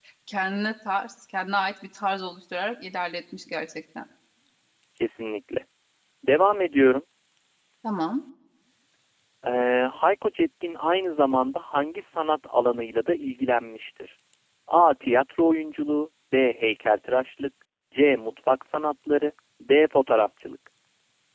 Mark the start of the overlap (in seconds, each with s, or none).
none